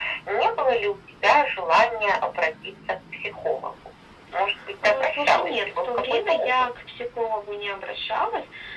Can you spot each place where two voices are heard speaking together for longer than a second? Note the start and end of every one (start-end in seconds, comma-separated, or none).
4.8-6.5